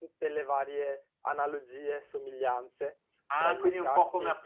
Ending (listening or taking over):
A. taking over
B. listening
A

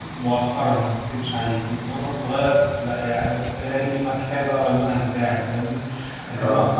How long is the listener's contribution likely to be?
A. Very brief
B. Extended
A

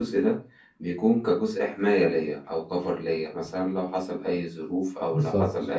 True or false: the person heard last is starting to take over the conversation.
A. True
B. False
B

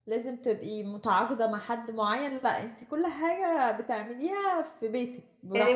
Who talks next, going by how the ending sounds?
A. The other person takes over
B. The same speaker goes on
A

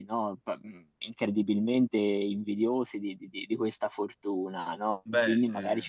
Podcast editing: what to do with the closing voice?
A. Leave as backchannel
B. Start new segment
A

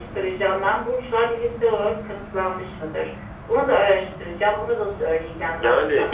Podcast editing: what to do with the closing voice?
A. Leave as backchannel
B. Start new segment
B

